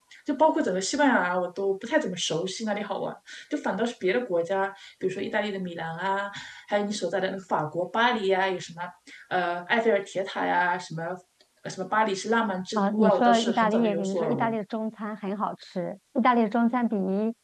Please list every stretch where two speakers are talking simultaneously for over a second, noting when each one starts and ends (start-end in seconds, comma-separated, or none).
12.8-14.6